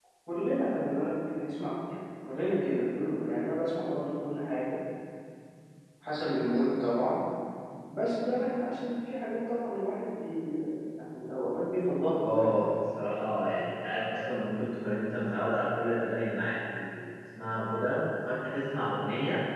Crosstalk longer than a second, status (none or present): none